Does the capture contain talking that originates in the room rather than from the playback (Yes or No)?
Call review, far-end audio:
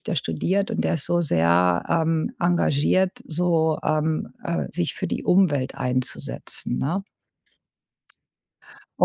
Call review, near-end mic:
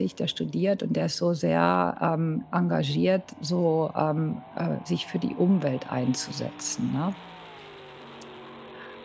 No